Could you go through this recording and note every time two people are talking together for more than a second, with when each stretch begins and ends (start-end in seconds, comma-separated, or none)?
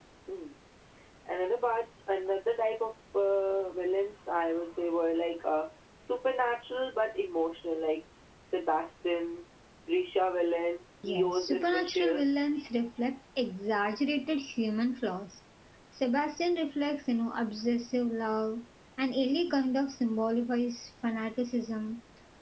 11.0-12.4